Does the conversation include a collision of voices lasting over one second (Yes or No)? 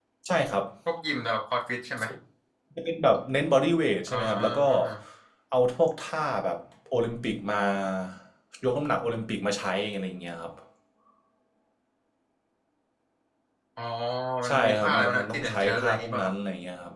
Yes